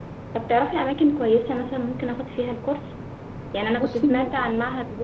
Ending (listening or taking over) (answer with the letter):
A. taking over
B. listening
B